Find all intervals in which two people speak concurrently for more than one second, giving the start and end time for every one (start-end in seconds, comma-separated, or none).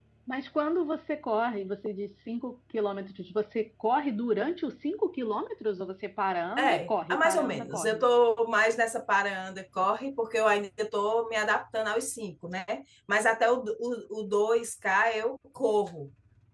6.6-8.0